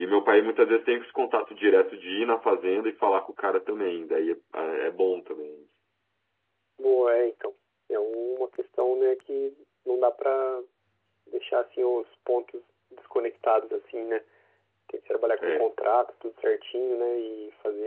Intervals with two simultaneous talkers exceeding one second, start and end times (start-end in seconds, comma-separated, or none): none